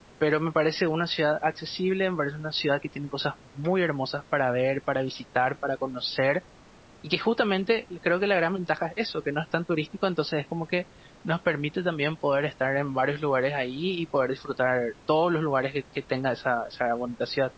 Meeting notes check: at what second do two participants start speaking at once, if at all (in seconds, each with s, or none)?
none